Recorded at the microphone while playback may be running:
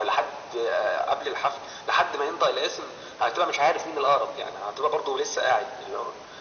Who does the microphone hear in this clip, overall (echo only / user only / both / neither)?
echo only